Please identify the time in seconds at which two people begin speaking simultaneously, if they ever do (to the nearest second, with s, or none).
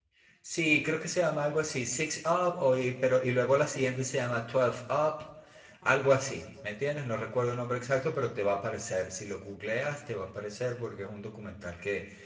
none